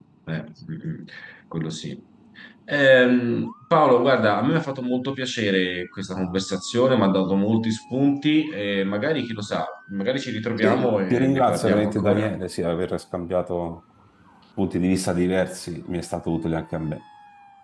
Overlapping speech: Yes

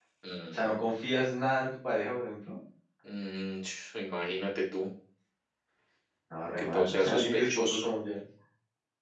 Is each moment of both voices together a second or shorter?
No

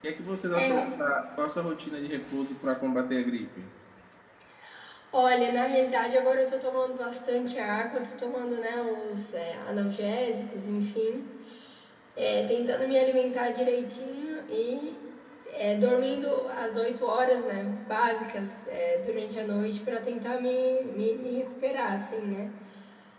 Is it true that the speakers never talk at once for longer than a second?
Yes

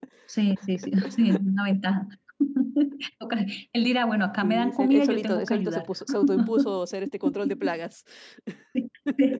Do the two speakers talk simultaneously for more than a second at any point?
Yes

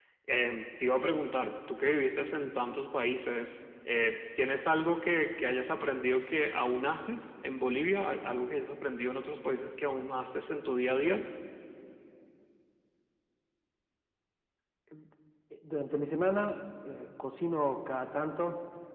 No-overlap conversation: Yes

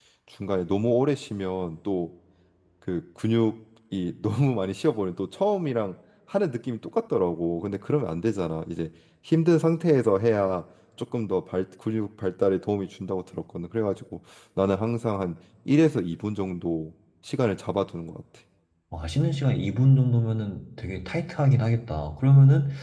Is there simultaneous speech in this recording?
No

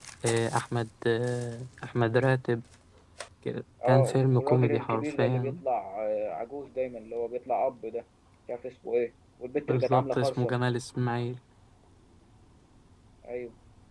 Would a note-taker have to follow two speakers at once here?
Yes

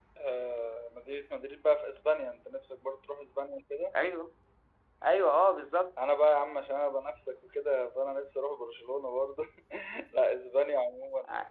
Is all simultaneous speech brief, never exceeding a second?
Yes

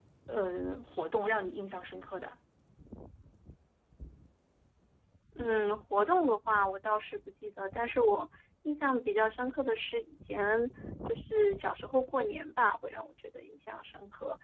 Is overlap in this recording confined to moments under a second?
Yes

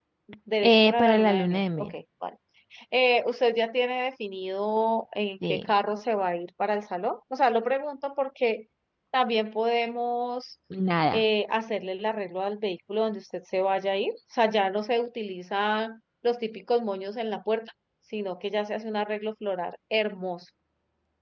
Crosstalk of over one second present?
Yes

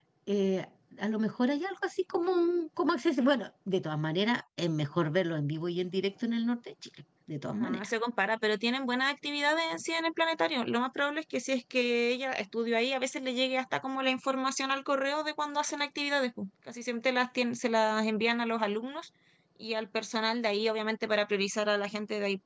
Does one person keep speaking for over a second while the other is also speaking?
No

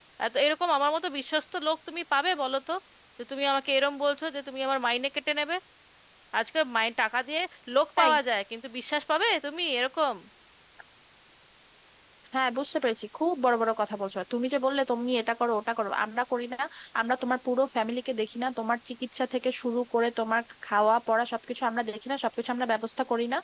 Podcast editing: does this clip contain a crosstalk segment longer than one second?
No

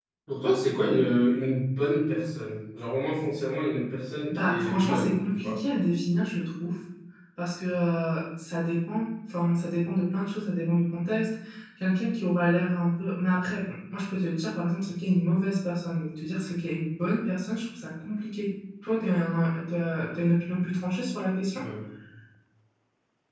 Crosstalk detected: Yes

